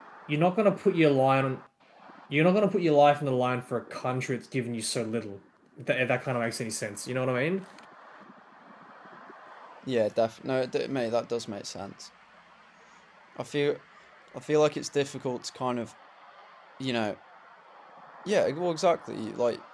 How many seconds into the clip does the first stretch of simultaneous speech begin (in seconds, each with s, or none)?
none